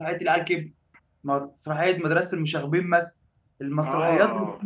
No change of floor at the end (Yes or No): Yes